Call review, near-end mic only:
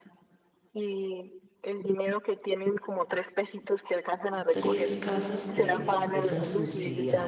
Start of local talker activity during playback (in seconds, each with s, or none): 4.5 s